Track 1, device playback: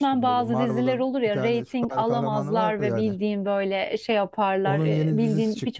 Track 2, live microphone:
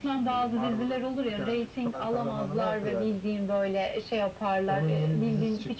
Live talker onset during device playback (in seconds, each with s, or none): none